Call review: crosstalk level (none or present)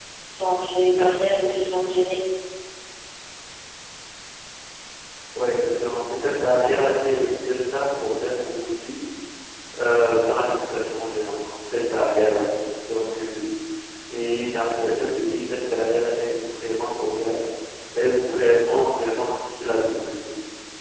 none